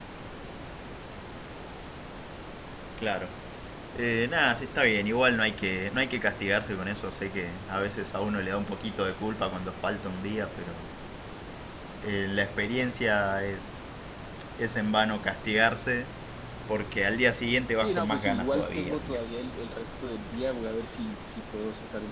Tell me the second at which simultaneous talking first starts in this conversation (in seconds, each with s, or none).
17.8 s